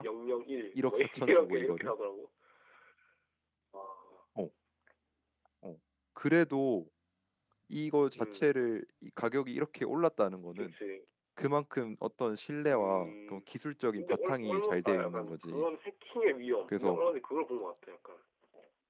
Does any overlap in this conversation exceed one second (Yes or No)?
Yes